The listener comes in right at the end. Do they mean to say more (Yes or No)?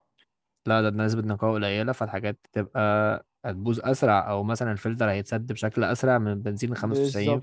Yes